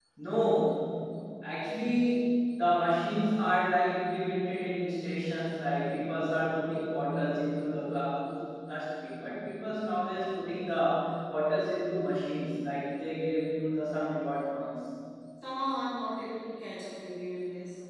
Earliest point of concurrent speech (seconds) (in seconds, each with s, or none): none